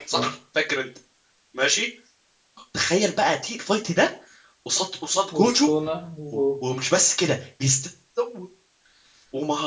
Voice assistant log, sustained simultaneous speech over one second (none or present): none